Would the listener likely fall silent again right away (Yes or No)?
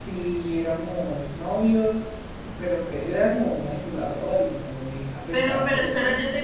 No